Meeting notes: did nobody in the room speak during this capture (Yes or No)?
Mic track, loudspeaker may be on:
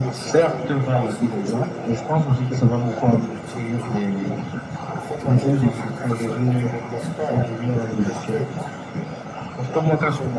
No